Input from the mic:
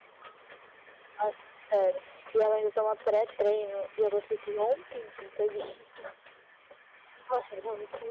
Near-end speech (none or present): none